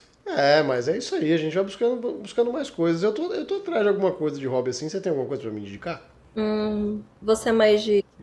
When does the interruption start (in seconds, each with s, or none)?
none